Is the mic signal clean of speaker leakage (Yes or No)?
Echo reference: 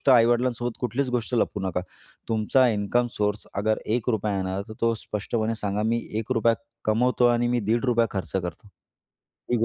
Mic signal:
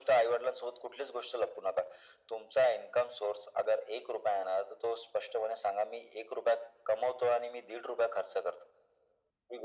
No